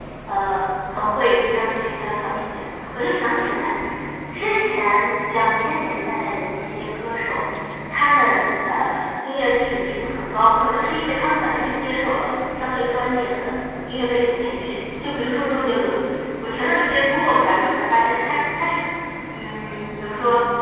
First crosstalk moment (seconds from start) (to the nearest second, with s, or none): none